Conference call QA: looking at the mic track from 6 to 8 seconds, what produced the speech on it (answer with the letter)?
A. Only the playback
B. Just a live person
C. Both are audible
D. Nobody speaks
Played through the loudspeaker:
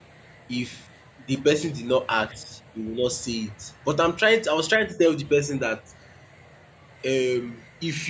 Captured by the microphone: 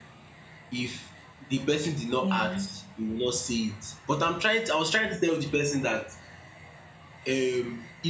A